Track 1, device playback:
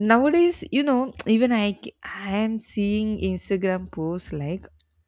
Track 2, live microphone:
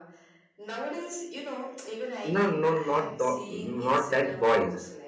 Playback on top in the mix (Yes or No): No